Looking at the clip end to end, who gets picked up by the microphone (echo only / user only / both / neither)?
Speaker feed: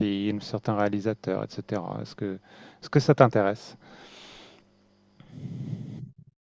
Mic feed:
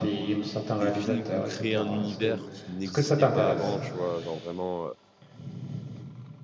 both